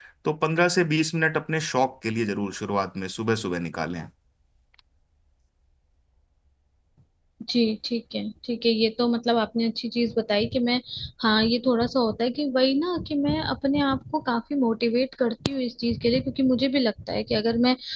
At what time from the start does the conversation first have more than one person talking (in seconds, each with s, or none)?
none